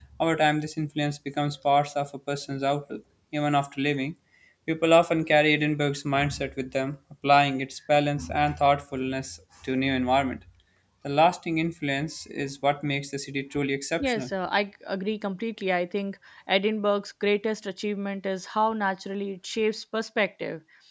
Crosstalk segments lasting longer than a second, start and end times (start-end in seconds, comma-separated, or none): none